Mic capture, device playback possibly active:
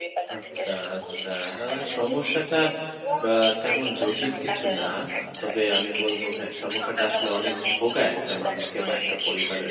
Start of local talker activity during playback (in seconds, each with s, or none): 0.4 s